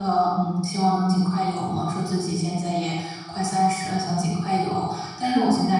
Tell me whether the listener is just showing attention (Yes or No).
Yes